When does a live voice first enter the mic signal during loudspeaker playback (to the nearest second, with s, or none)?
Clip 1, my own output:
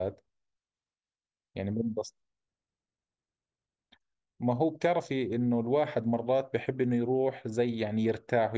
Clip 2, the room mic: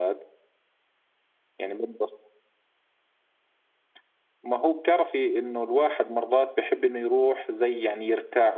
none